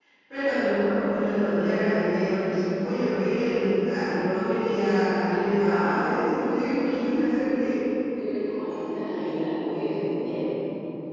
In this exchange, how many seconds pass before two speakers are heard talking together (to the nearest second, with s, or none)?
none